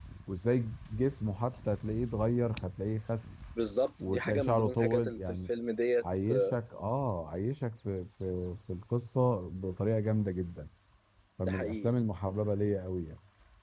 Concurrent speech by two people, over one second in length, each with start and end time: 4.1-5.4

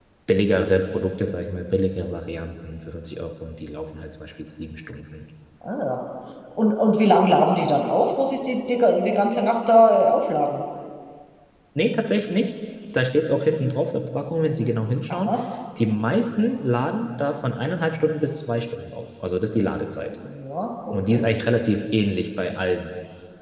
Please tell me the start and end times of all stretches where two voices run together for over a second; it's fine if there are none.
none

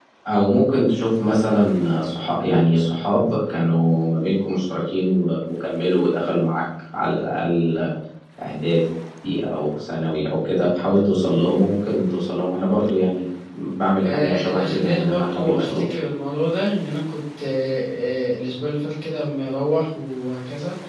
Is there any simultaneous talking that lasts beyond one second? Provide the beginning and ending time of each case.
14.1-15.9

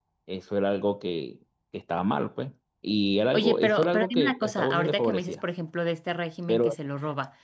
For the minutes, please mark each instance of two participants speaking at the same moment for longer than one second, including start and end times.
3.3-5.4

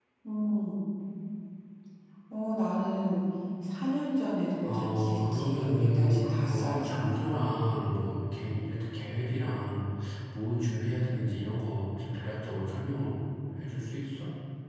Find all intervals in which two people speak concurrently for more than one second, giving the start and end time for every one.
4.6-7.2

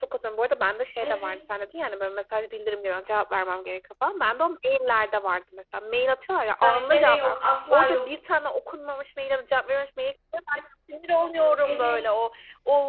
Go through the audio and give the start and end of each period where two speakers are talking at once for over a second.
6.6-8.0

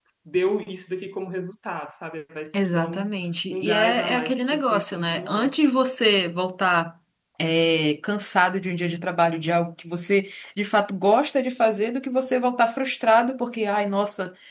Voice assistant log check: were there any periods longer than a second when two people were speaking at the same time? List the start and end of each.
3.5-5.5

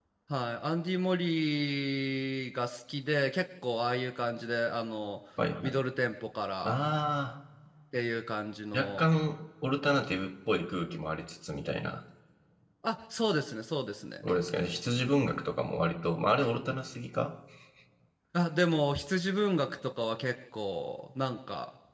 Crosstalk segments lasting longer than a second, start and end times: none

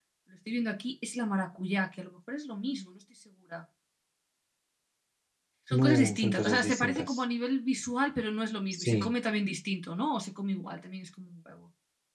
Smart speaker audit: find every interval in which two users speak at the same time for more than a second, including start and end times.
5.7-7.2

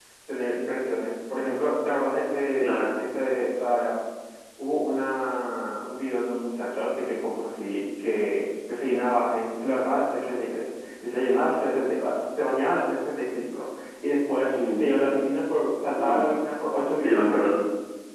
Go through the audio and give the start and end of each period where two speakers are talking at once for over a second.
none

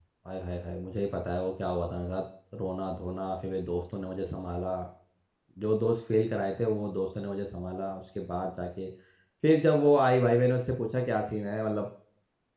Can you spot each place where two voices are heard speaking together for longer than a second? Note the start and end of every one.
none

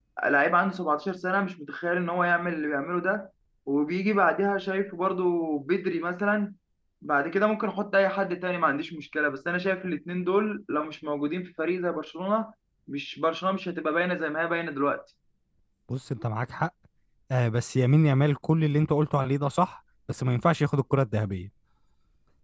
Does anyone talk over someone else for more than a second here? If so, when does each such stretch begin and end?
none

